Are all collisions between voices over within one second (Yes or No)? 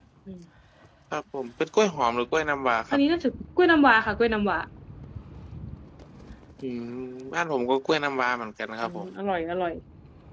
Yes